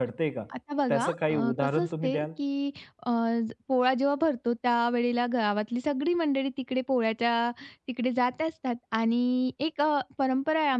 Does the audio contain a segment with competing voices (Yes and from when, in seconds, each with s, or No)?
Yes, from 0.9 s